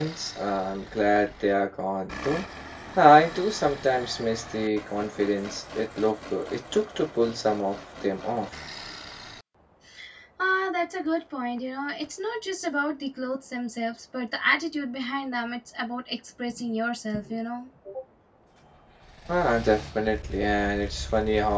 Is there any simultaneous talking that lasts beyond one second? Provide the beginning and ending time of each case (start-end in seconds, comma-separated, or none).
none